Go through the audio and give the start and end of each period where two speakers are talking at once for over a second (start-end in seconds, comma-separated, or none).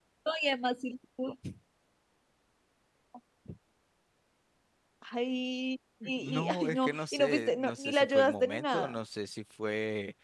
6.1-9.0